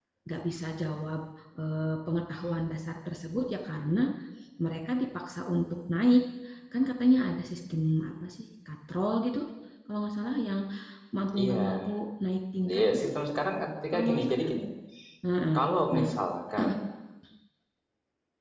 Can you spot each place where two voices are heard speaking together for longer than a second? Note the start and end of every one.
none

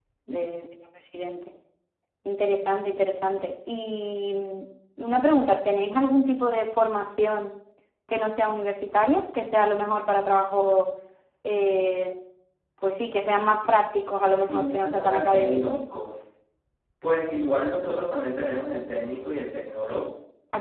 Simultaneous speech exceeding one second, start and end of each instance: 14.5-15.8

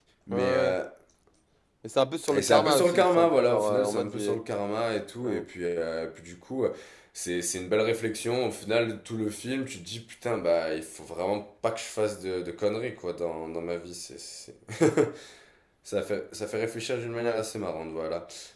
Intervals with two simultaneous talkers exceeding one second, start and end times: 2.3-4.4

